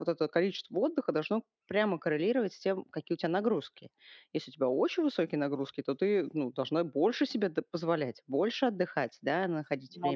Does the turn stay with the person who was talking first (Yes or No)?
Yes